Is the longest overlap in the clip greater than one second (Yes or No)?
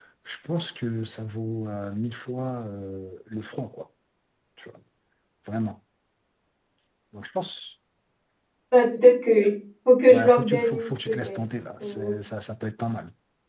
Yes